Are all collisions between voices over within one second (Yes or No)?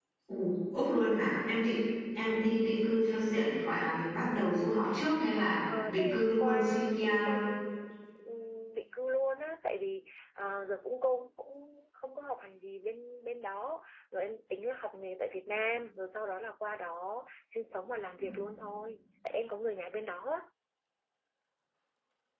No